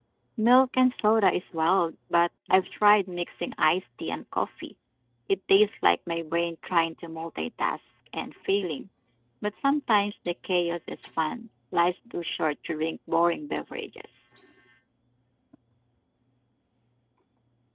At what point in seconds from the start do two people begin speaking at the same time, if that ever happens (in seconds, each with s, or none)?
none